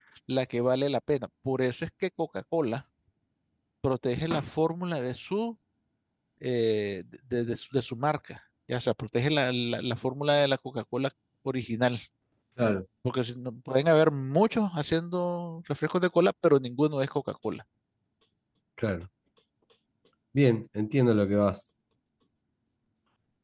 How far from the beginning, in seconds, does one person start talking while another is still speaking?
none

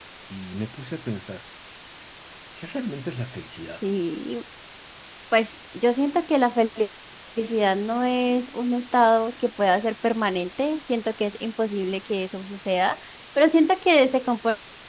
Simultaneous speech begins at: none

